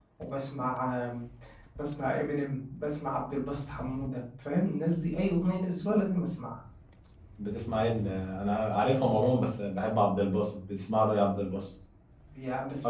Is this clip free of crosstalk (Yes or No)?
Yes